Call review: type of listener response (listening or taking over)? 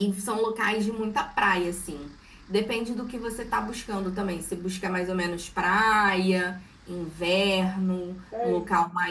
taking over